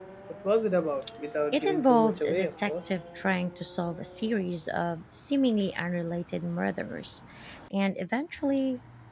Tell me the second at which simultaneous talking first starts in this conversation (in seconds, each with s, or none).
1.5 s